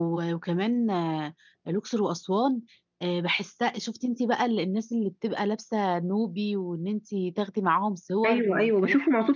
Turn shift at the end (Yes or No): Yes